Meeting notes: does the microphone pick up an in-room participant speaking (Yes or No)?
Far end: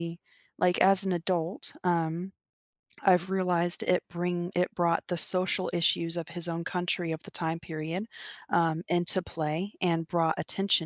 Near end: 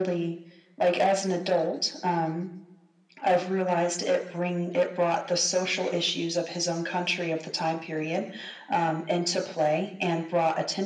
No